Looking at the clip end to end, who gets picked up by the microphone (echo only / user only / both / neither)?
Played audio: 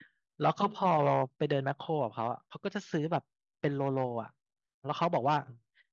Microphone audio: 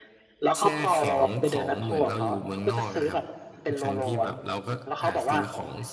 both